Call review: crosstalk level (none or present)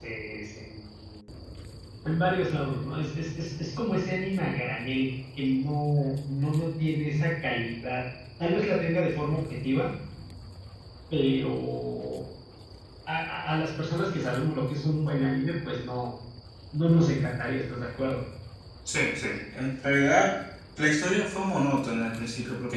none